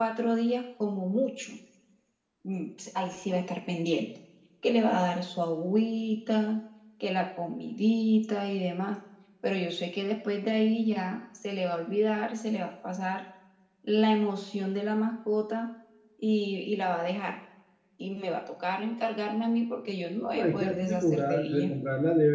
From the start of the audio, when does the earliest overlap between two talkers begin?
20.2 s

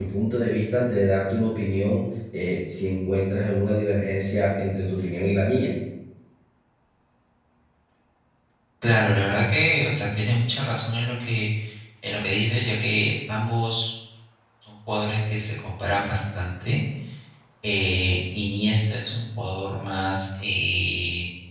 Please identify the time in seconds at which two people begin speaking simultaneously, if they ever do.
none

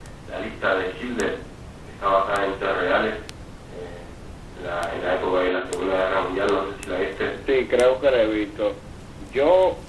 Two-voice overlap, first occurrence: none

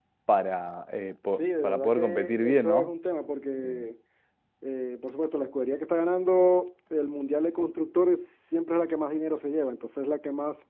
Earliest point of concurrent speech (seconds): 1.4 s

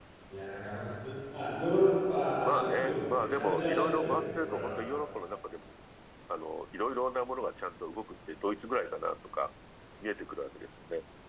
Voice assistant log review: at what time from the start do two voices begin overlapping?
2.4 s

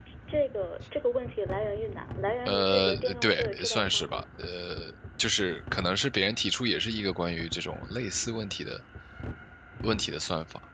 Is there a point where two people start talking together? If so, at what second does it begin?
2.5 s

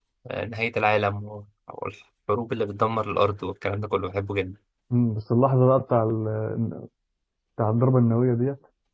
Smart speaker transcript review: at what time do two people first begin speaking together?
none

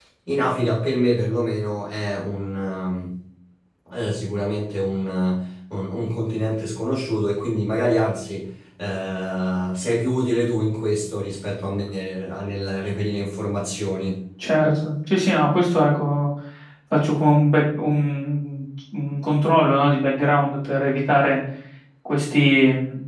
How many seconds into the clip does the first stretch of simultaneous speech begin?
none

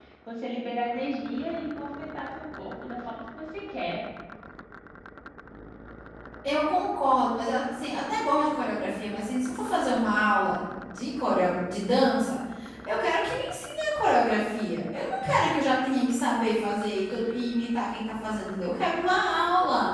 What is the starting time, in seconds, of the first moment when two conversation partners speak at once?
none

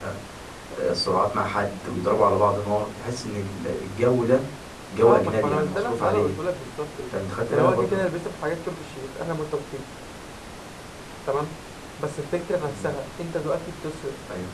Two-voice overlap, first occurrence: 5.0 s

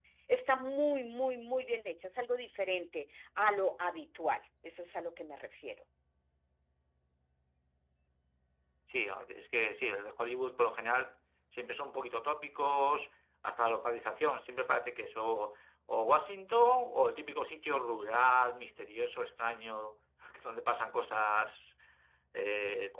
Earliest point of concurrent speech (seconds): none

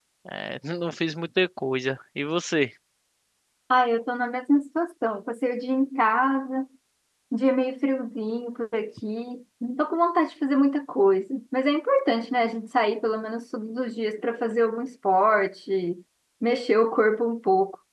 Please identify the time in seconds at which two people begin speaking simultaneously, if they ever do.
none

